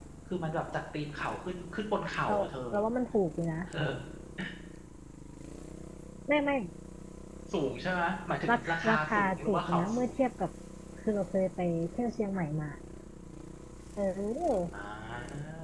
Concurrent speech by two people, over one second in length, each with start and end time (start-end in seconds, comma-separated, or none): 8.5-10.1